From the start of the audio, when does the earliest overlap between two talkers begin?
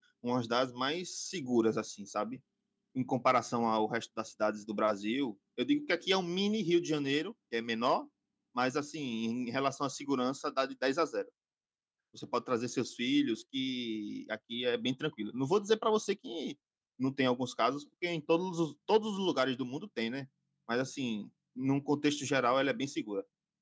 none

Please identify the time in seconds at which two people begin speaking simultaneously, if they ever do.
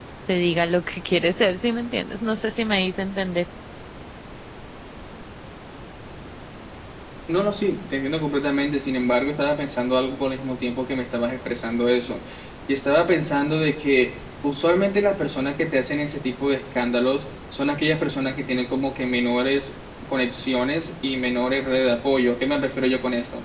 none

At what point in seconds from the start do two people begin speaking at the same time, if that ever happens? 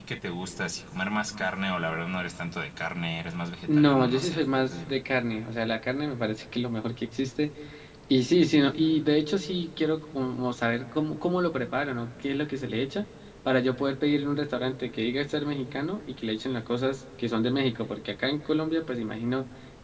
3.7 s

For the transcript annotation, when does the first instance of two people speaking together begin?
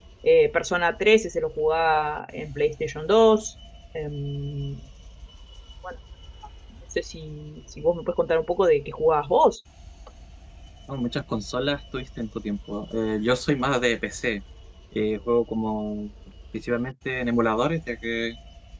none

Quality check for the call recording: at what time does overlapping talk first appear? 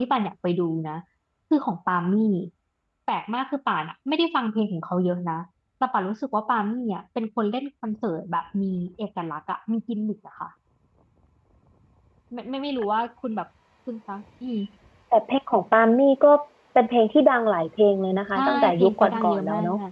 18.4 s

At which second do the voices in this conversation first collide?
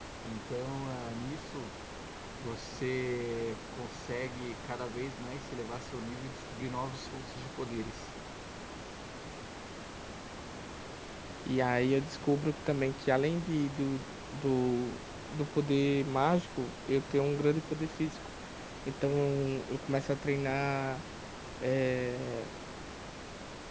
none

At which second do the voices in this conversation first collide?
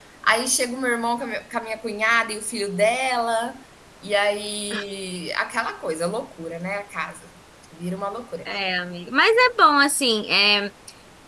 none

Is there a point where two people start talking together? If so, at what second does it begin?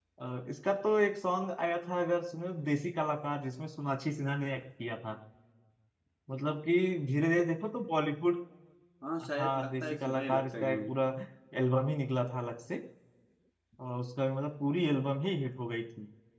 9.4 s

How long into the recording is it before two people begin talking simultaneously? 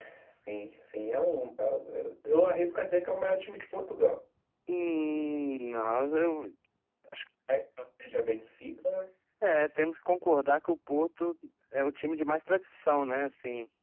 none

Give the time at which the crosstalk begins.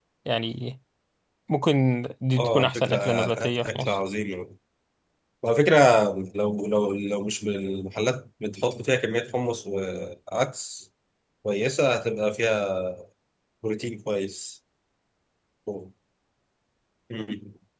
2.4 s

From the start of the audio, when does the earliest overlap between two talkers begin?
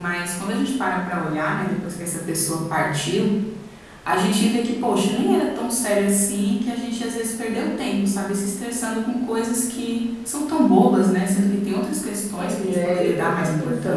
12.4 s

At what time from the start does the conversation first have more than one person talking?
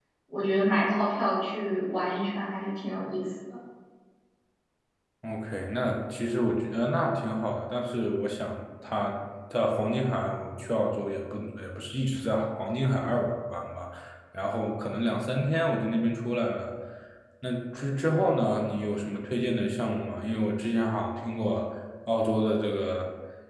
none

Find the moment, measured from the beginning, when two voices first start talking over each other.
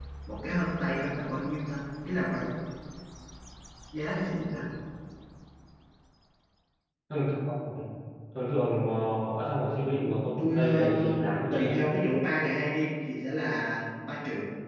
10.0 s

